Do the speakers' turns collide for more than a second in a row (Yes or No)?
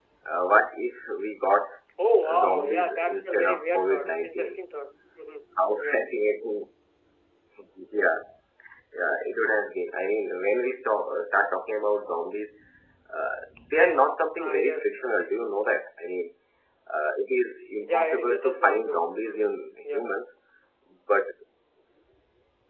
Yes